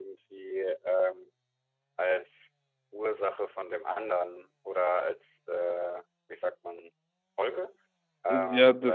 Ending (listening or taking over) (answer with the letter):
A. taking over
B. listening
A